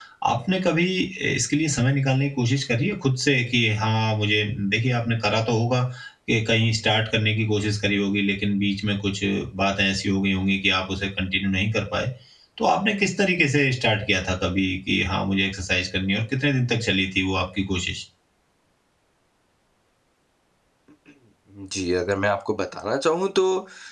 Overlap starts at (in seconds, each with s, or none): none